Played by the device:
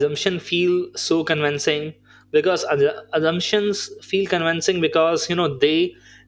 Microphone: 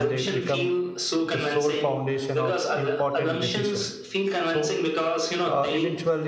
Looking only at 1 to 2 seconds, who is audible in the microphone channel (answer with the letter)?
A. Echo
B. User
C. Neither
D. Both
D